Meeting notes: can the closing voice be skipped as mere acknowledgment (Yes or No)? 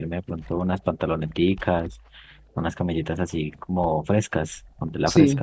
No